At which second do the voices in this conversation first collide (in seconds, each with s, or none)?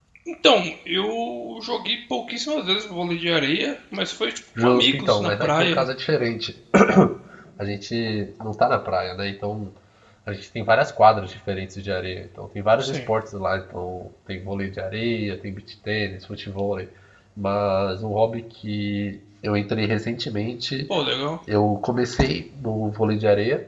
4.6 s